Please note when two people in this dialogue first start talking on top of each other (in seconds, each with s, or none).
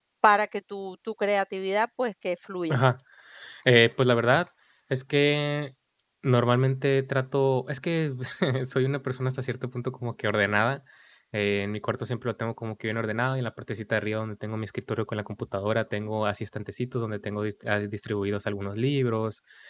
none